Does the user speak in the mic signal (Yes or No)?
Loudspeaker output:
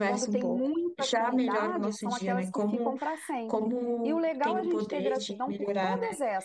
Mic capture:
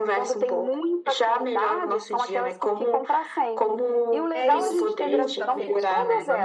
Yes